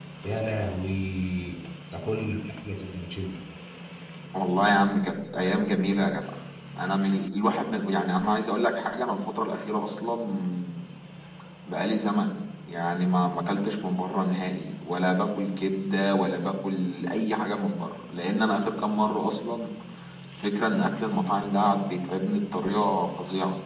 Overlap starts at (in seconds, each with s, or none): none